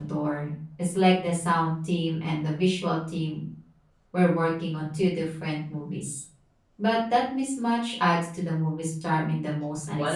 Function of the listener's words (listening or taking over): taking over